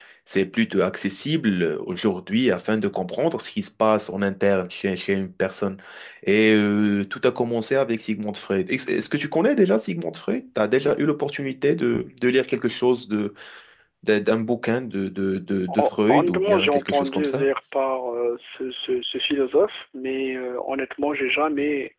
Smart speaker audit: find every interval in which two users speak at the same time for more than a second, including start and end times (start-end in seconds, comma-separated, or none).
15.8-17.5